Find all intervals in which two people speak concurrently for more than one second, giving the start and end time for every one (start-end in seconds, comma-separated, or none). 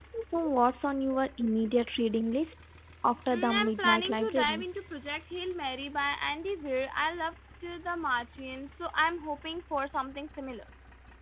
3.3-4.6